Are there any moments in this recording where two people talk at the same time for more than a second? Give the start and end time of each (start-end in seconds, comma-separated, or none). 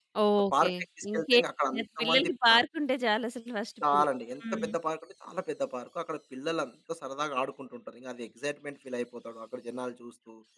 1.1-2.6